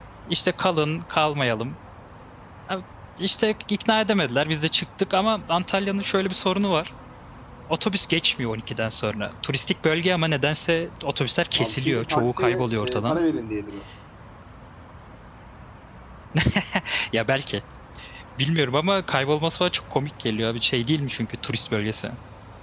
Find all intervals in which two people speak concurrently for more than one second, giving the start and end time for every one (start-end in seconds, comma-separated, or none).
11.6-13.2